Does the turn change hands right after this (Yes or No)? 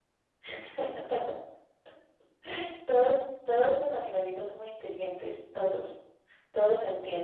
No